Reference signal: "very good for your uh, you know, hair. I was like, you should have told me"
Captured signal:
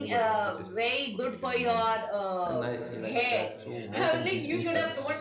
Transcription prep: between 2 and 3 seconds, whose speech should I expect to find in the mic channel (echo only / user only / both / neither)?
both